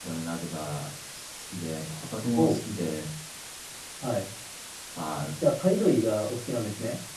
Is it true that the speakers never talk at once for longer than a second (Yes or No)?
Yes